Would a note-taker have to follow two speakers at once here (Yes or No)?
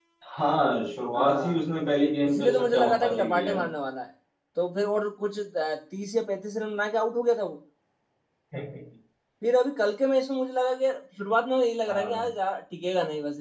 Yes